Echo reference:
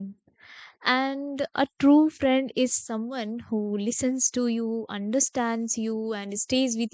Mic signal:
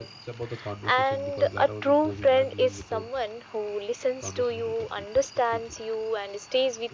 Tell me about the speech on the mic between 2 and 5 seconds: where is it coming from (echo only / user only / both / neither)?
both